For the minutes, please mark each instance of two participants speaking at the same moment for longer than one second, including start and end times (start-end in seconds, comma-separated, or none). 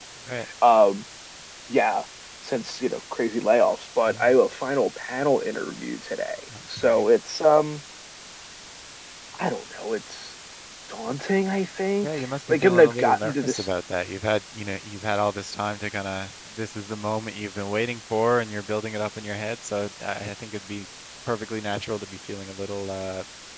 12.0-13.7